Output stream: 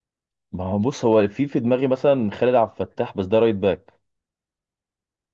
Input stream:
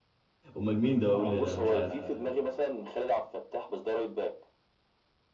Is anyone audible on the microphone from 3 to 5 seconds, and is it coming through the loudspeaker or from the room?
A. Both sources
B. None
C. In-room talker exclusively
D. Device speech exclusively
D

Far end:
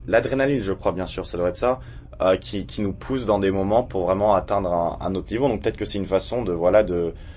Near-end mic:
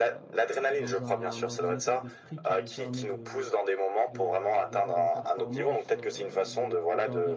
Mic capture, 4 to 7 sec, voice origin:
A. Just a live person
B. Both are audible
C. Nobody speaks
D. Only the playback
B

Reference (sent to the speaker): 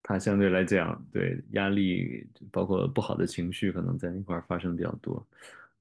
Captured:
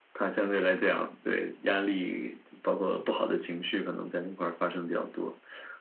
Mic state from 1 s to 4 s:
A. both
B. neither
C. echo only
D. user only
C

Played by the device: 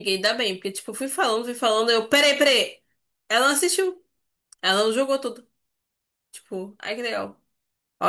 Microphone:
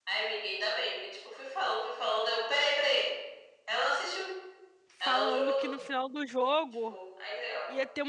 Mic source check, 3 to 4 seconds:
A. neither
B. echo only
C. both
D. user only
B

